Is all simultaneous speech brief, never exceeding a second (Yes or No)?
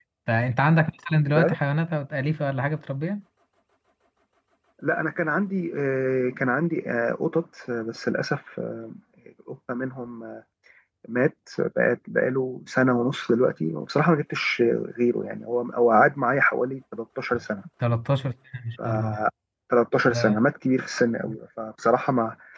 Yes